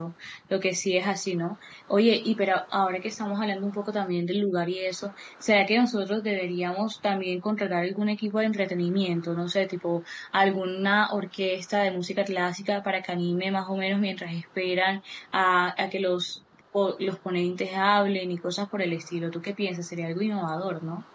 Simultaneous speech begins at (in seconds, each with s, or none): none